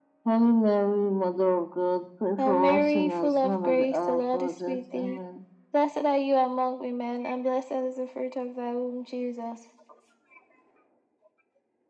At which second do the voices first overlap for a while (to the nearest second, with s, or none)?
2 s